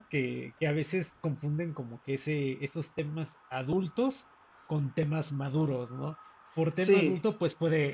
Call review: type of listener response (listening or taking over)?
listening